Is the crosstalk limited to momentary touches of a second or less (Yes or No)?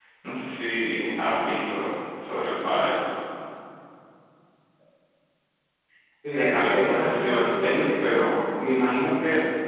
No